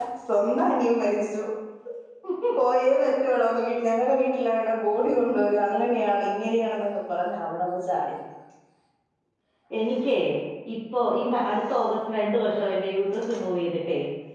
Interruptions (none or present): none